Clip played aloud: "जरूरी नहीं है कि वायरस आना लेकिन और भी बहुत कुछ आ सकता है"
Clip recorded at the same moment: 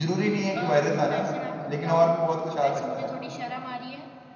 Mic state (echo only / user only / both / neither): both